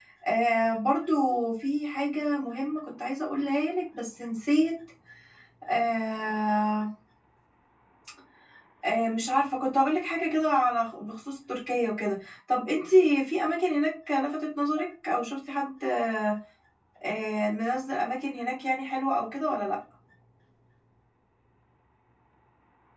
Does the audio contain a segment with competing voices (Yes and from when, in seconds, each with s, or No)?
No